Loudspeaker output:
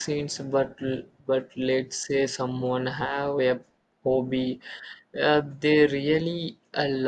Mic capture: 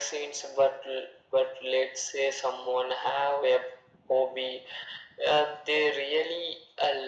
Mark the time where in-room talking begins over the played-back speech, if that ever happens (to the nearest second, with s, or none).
none